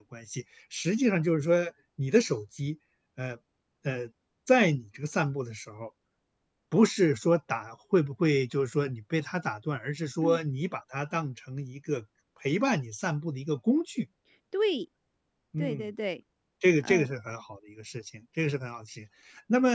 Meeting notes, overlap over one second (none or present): none